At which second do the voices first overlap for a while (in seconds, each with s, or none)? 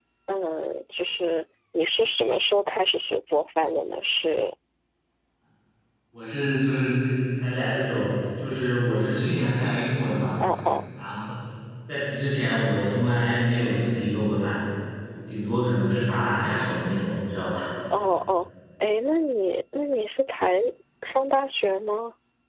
none